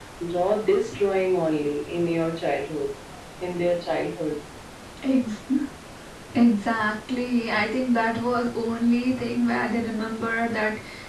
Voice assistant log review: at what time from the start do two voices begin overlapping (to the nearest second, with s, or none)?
none